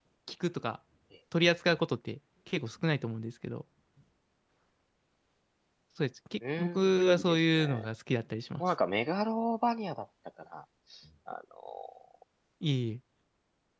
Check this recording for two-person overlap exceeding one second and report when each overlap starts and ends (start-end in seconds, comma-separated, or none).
6.6-7.8